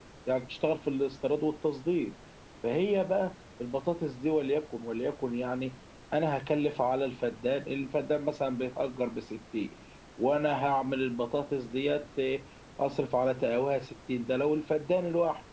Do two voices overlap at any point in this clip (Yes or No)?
No